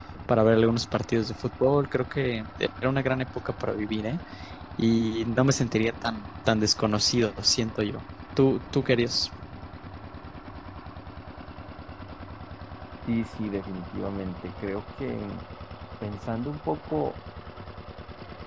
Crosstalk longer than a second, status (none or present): none